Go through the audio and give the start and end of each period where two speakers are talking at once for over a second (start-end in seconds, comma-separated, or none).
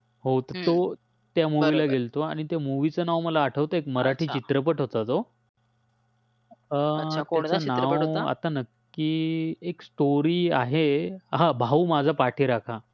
7.0-8.3